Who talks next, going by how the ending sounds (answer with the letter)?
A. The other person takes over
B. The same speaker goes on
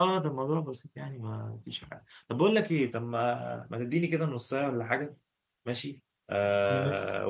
B